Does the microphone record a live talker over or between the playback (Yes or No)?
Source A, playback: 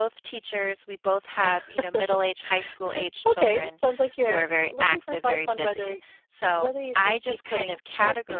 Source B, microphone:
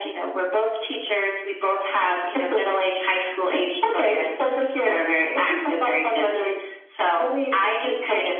No